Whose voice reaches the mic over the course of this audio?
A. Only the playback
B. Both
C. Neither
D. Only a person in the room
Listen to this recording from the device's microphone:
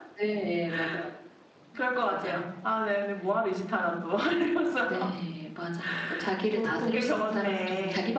A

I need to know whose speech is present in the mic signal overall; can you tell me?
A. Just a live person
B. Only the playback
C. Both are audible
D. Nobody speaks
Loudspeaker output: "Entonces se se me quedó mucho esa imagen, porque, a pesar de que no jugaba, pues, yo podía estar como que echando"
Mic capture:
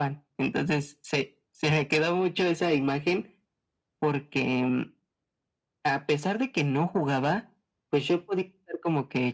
B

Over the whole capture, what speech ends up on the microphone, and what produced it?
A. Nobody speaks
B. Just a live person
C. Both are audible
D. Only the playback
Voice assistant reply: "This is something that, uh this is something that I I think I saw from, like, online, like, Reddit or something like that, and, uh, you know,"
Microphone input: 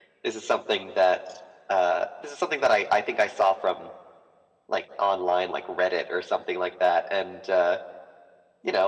D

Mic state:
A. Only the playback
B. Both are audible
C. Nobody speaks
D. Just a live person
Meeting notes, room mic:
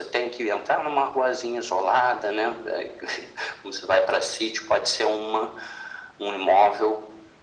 A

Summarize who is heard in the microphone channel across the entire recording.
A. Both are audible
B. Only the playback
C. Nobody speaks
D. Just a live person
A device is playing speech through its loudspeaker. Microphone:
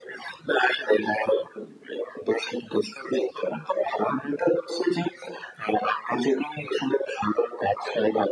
B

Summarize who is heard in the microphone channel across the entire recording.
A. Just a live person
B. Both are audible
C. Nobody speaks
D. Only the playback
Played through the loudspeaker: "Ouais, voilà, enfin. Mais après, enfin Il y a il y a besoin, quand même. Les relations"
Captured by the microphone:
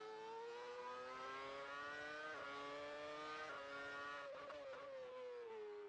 C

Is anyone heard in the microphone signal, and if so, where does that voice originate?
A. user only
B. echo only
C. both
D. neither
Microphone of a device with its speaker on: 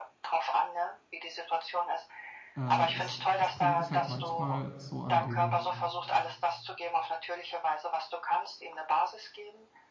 C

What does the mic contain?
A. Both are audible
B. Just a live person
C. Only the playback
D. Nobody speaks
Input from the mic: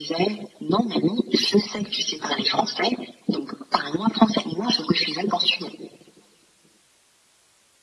C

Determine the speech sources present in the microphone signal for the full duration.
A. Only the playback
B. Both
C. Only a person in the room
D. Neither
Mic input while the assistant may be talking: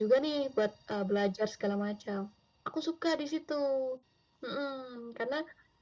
A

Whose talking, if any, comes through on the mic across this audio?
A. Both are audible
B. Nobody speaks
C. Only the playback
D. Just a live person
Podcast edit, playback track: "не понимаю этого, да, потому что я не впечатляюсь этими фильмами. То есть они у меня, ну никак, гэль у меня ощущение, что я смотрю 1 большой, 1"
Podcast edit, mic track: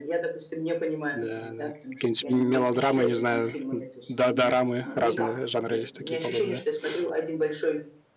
A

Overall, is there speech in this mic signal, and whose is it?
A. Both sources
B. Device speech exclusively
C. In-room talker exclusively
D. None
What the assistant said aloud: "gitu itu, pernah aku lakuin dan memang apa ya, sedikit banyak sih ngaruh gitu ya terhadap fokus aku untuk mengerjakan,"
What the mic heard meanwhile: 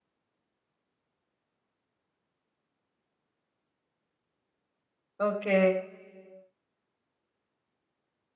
C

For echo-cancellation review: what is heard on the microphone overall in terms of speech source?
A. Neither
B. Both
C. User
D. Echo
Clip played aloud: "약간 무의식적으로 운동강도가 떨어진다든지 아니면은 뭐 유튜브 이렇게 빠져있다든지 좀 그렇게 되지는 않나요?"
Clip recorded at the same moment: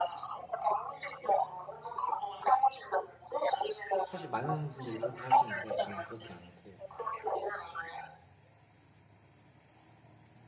B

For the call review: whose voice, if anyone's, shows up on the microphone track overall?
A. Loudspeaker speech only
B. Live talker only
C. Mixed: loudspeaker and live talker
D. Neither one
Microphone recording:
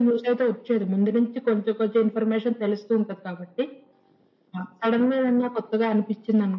A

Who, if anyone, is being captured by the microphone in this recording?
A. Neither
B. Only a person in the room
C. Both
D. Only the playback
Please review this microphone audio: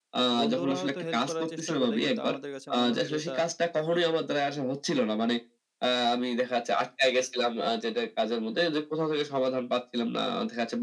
C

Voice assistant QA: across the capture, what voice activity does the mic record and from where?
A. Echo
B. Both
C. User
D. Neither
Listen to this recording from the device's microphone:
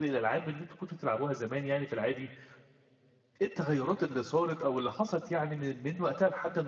C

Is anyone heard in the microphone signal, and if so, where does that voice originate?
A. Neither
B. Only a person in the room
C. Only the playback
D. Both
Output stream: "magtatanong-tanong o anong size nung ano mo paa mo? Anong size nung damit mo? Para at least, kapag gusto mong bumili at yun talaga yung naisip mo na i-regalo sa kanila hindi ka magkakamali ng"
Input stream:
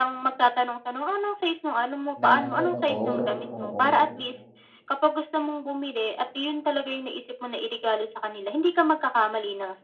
D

